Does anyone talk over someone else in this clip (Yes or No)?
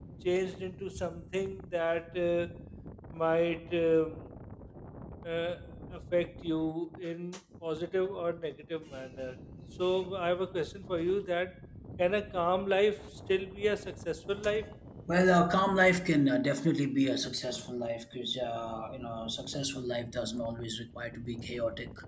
No